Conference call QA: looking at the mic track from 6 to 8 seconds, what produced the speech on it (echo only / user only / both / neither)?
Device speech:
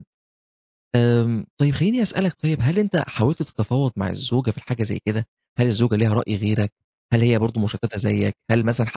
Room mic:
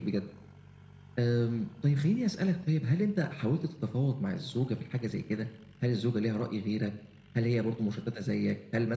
echo only